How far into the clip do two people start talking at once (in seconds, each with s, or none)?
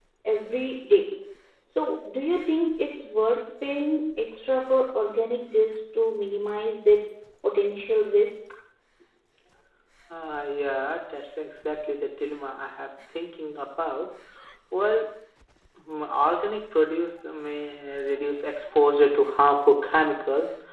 none